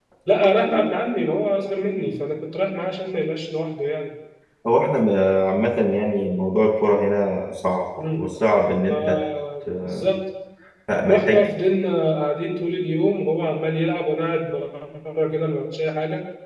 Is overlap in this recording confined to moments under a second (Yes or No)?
Yes